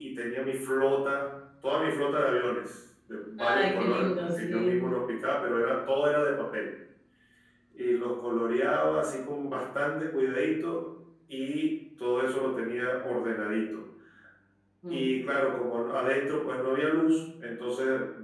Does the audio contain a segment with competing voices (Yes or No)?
Yes